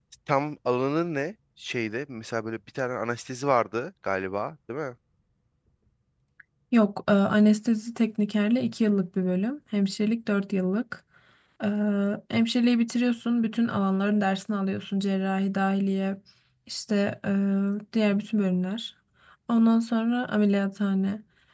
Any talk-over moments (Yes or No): No